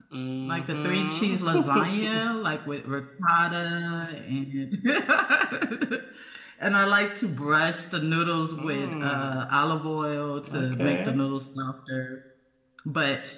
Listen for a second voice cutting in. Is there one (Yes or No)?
Yes